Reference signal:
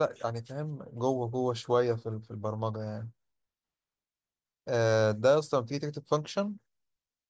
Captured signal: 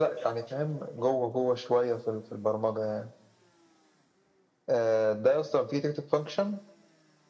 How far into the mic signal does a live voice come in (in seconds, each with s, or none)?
none